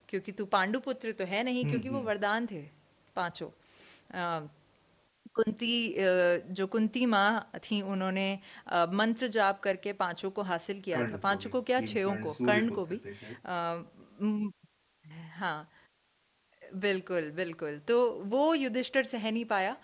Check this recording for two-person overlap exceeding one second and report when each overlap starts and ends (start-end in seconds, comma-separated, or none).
10.9-13.0